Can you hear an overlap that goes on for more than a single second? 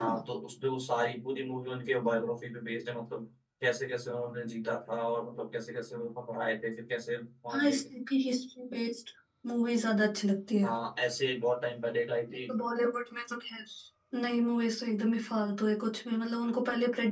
No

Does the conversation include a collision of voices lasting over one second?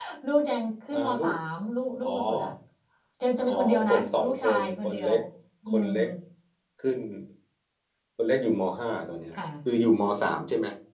Yes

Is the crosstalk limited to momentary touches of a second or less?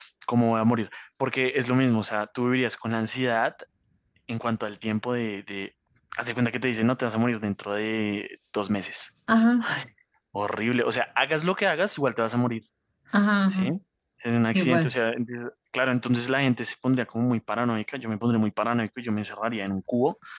Yes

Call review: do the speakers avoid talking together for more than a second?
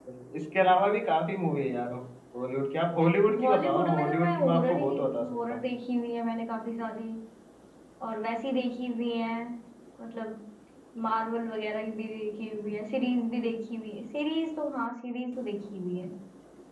No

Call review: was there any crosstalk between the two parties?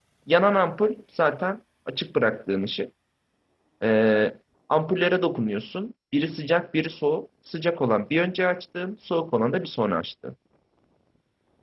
No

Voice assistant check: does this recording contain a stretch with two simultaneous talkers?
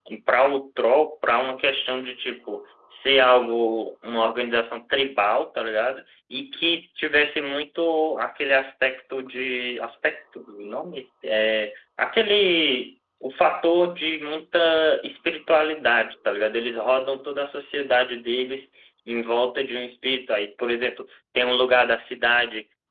No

